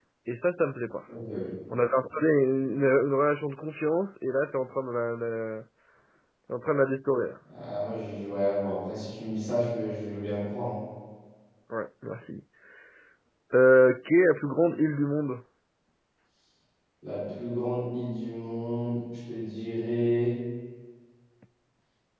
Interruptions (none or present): none